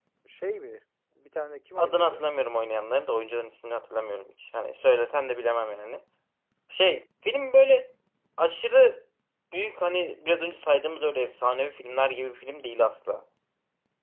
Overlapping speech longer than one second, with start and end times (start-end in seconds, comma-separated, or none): none